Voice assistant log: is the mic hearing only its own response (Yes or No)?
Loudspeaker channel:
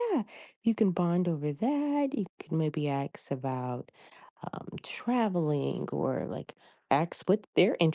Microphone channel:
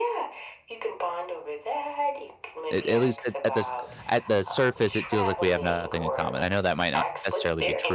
No